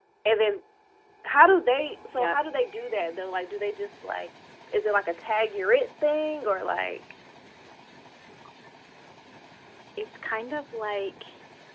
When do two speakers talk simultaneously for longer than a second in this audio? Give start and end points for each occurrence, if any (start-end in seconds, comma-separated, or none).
none